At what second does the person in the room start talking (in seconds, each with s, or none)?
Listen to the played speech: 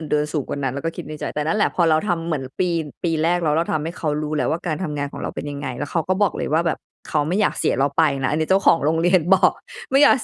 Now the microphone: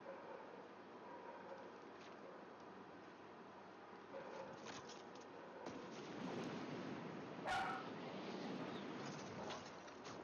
none